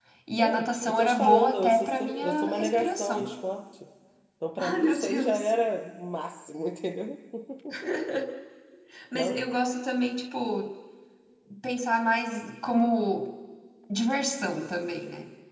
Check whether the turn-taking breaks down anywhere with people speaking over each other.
Yes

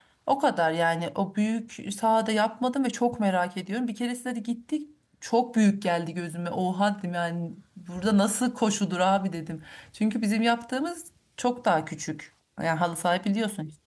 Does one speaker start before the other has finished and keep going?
No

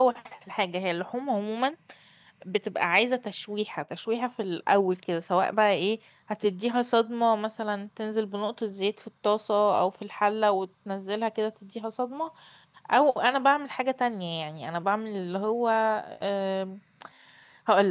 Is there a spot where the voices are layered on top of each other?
No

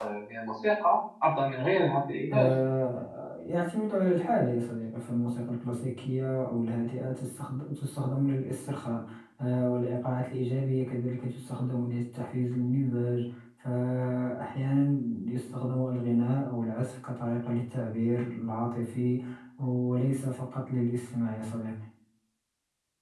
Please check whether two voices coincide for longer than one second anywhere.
No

